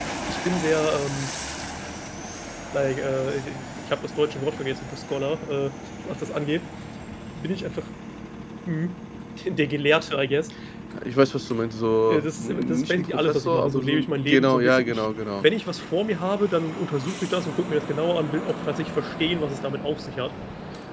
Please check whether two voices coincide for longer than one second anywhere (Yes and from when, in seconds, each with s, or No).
Yes, from 12.1 s